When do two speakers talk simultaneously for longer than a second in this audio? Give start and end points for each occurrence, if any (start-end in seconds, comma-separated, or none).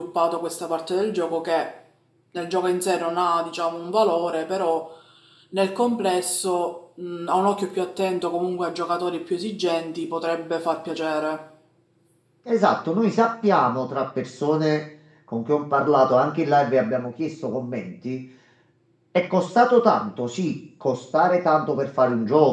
none